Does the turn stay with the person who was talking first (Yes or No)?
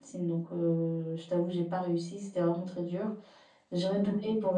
Yes